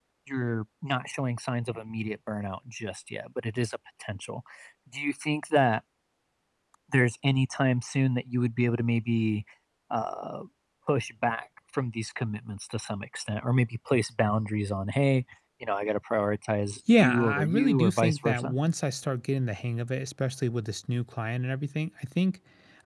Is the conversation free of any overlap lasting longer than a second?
No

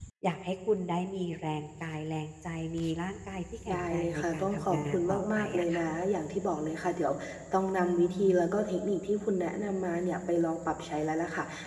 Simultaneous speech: Yes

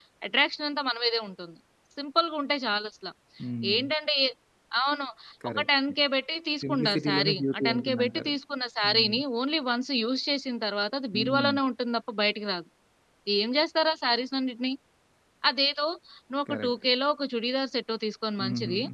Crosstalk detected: Yes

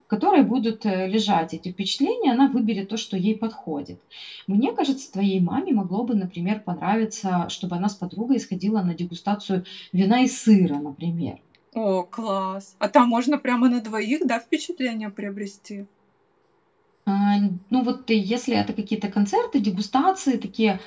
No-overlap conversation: Yes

